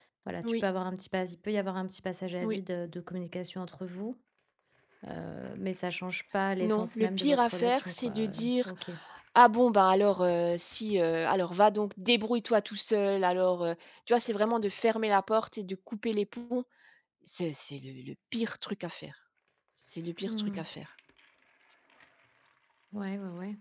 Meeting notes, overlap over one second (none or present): present